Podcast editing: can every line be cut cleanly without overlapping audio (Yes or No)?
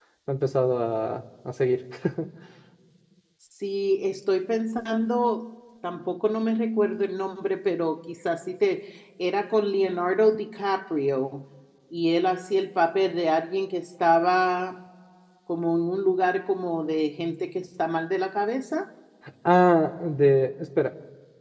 Yes